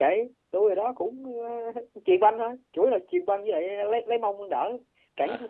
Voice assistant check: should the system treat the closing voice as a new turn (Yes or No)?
Yes